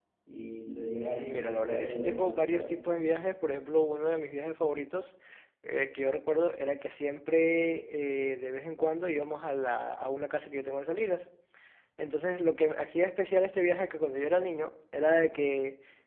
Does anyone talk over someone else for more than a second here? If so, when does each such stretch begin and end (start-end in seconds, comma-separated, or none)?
1.0-2.7